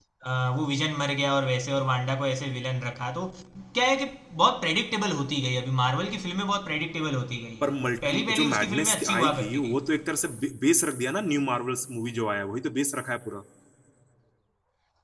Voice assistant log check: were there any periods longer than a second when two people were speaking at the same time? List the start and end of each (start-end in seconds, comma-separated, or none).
7.6-9.8